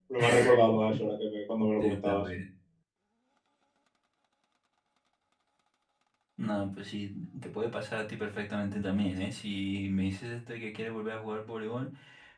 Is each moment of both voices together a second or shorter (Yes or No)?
Yes